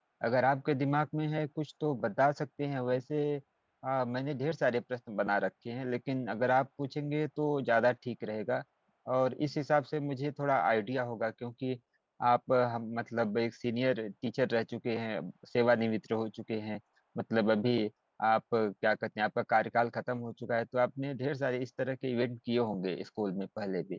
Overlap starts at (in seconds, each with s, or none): none